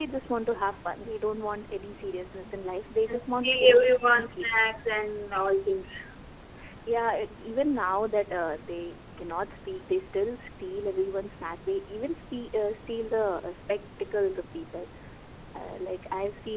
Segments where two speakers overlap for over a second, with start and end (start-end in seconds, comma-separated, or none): 3.1-4.5